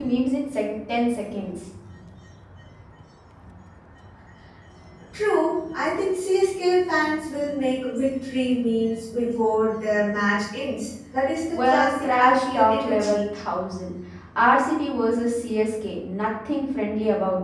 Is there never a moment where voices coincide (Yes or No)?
No